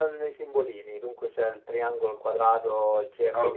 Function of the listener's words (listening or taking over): taking over